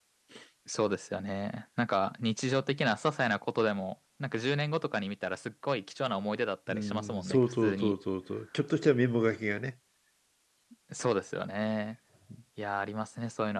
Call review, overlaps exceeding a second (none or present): present